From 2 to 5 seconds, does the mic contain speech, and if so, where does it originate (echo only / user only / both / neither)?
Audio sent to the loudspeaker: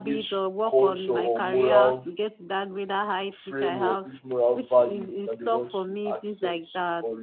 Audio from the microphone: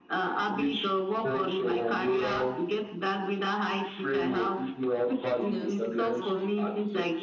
echo only